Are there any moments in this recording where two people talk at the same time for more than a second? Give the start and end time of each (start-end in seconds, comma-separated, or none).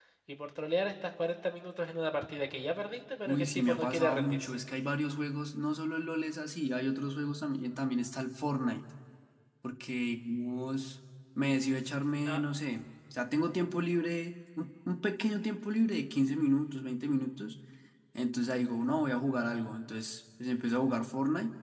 3.3-4.5